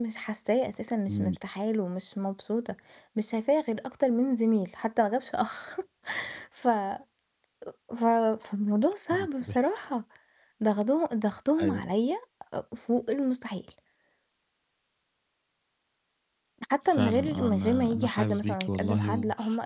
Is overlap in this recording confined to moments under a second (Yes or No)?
No